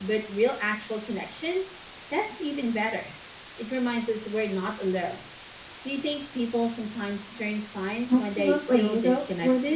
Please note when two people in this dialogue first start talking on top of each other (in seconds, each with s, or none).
8.1 s